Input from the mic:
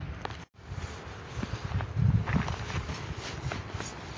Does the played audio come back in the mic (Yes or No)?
No